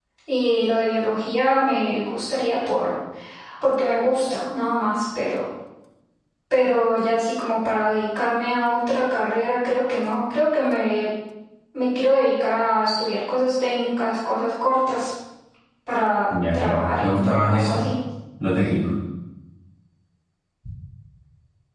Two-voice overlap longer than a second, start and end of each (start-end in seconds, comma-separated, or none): 16.5-17.8